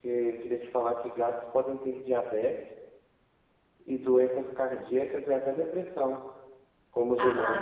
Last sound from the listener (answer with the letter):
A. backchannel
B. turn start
B